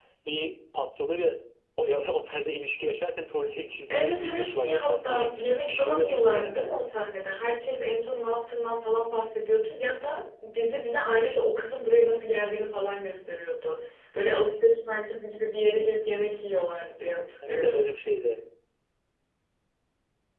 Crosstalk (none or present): present